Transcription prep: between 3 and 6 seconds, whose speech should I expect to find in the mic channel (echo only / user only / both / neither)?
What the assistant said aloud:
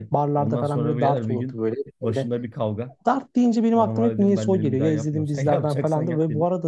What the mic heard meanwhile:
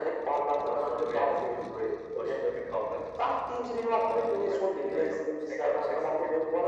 echo only